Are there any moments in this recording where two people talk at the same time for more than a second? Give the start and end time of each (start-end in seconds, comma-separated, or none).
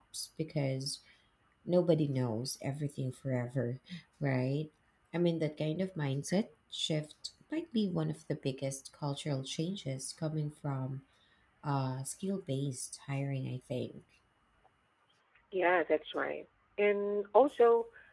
none